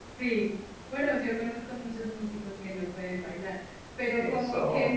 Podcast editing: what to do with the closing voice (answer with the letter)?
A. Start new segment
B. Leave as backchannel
B